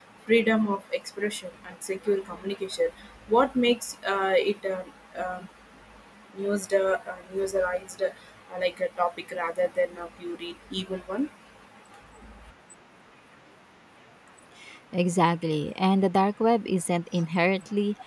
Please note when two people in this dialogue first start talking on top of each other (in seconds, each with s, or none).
none